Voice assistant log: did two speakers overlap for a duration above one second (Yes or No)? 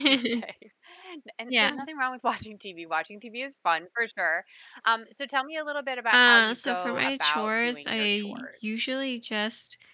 Yes